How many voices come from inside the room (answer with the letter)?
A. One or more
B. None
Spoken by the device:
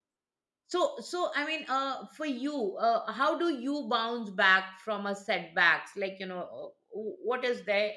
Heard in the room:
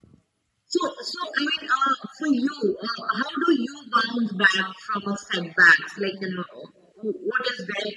B